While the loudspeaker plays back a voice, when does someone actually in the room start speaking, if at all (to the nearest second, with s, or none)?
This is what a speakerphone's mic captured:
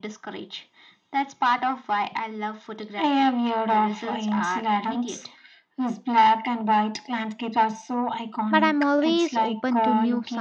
9 s